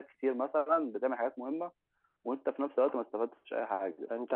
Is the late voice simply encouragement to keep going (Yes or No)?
No